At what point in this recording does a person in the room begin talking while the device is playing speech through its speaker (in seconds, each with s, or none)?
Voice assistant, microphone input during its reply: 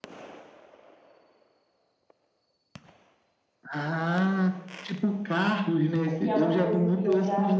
6.0 s